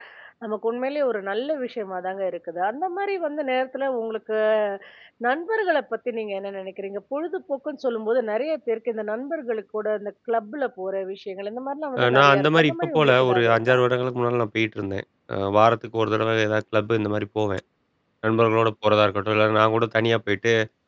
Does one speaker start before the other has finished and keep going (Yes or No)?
Yes